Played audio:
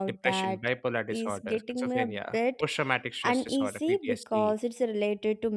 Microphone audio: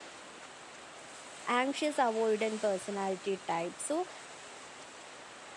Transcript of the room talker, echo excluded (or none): anxious avoidant personality type so